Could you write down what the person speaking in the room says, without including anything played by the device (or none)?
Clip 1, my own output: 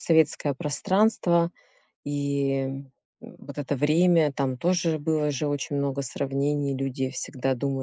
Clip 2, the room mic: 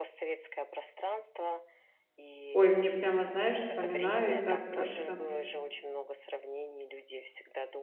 Ой, мне прямо, знаешь, вспоминаю и так как-то